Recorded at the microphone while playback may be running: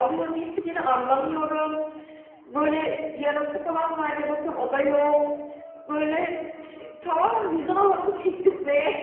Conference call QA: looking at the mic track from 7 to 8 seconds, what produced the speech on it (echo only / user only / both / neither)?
echo only